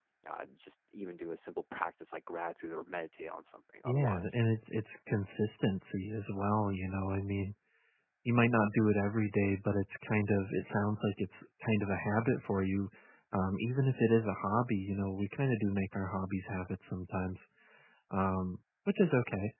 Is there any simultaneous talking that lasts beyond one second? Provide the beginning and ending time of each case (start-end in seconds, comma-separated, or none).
none